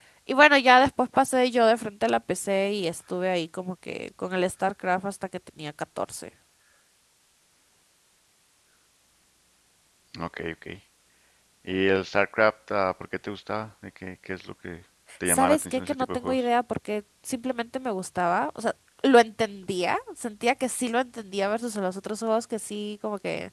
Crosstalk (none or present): present